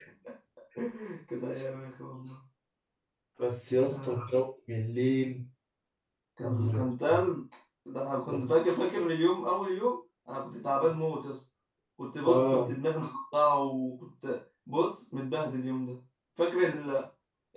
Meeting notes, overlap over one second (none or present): none